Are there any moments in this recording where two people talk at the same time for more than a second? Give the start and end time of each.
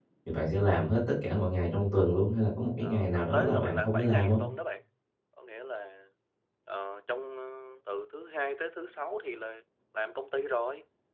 2.8-4.4

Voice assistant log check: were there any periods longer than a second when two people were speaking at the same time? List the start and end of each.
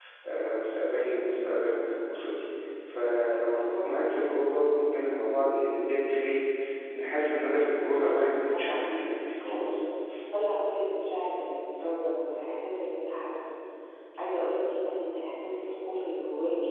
8.0-9.8

